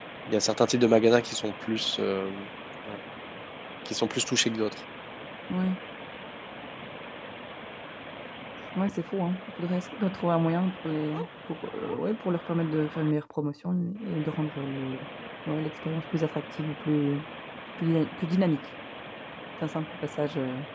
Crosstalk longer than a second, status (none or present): none